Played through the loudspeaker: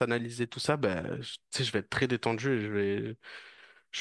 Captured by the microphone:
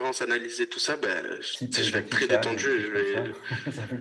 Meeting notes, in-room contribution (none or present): present